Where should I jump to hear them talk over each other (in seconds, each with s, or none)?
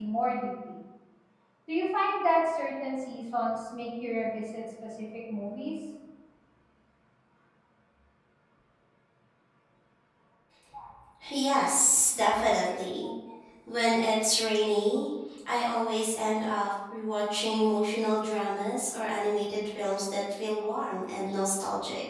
none